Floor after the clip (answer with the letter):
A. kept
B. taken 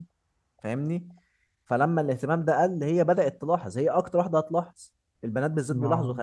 A